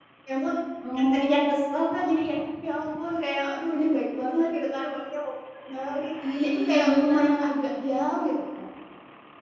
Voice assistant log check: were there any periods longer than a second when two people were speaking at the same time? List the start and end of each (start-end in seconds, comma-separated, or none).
0.9-2.2, 6.3-7.6